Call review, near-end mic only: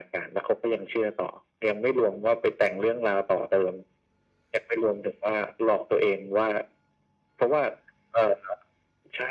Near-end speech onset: none

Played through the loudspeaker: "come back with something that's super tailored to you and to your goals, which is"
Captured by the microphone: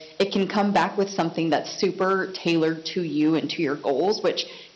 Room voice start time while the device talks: none

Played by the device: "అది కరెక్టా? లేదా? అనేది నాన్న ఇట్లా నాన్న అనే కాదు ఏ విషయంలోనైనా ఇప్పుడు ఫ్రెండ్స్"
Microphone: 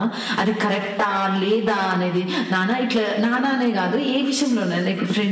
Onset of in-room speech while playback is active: none

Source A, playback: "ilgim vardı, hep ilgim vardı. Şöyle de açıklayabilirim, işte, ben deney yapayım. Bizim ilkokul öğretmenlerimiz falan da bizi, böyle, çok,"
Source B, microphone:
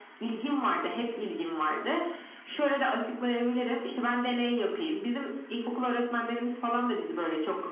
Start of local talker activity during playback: none

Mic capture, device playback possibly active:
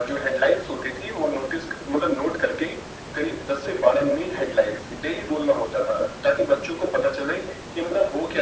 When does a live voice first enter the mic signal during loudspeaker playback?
none

